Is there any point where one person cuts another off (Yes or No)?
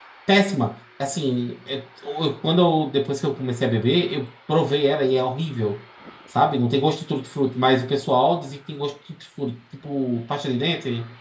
No